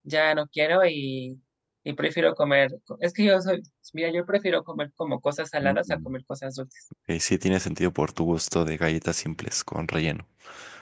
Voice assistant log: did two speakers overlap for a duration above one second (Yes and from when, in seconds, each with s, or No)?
No